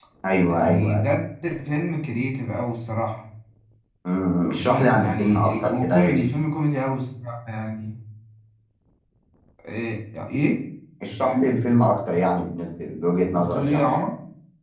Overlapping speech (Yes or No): Yes